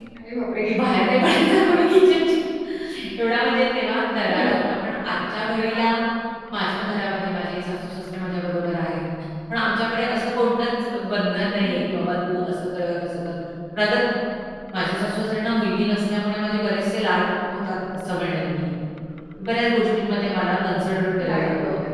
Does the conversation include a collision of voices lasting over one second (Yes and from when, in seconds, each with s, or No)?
No